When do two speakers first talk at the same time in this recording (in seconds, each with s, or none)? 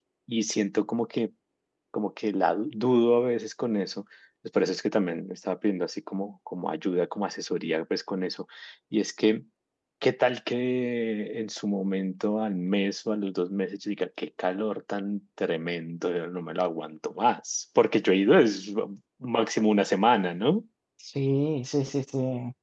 none